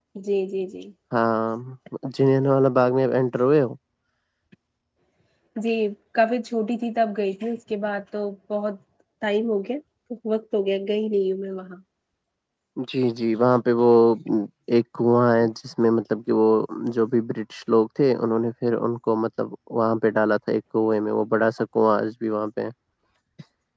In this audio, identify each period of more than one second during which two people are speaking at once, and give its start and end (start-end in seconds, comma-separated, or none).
none